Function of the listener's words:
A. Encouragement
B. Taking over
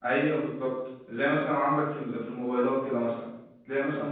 A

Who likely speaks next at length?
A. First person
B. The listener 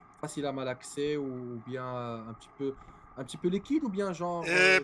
B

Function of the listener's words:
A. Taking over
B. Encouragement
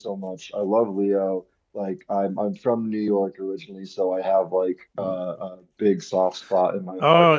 A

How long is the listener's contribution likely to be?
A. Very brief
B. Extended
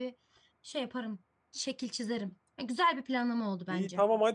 B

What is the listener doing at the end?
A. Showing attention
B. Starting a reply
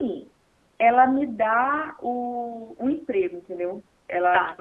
A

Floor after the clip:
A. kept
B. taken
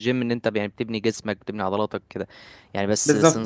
A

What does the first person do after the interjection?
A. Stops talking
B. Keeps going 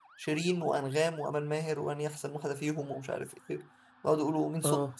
B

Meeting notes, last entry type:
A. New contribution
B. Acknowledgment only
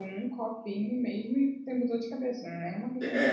A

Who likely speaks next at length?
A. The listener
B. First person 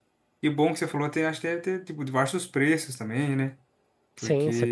A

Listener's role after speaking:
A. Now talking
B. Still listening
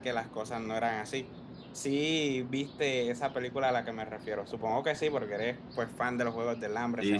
A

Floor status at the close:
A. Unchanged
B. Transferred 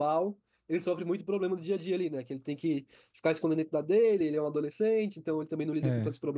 A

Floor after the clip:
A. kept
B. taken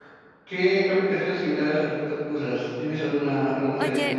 B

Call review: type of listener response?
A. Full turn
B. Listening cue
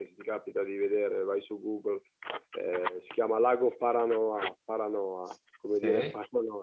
B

